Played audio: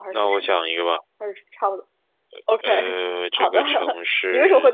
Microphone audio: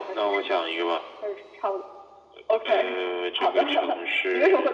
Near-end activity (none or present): none